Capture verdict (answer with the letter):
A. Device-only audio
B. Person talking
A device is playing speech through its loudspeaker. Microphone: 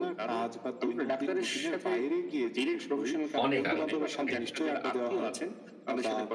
B